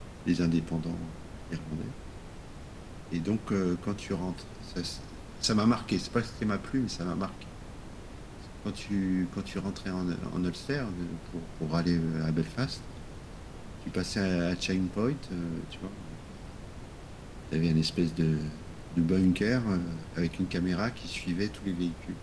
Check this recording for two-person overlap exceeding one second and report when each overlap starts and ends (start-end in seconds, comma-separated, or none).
none